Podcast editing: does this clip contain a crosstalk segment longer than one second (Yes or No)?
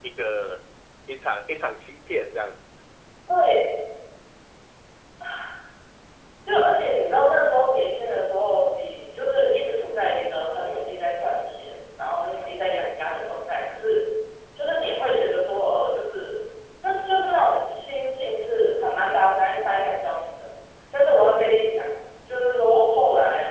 No